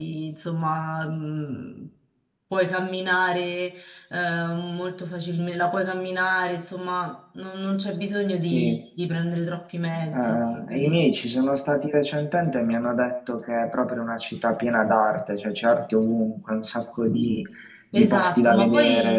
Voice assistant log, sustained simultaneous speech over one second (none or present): present